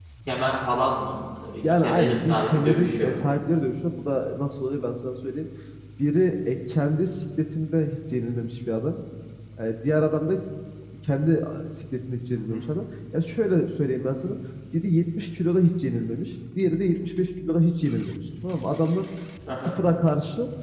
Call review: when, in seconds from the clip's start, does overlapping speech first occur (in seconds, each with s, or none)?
1.8 s